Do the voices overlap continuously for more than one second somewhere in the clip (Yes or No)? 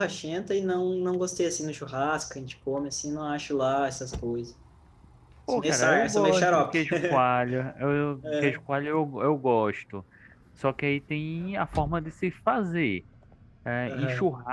Yes